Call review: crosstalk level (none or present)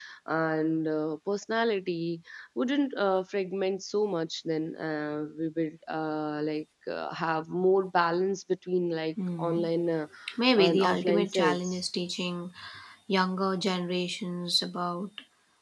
present